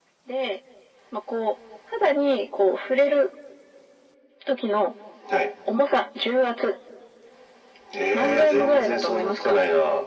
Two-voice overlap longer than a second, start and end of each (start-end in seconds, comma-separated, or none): 8.1-9.6